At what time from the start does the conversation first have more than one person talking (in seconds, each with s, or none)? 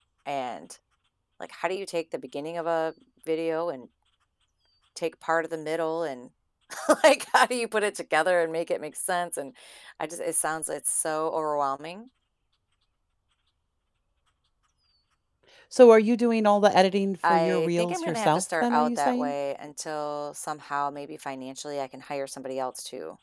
17.2 s